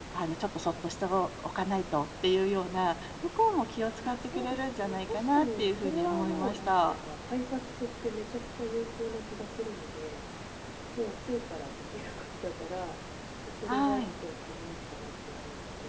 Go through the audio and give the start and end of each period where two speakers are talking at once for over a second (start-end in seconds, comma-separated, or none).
4.1-7.0